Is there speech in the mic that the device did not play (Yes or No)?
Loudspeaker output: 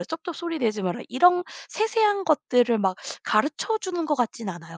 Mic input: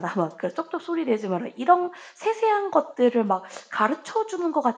No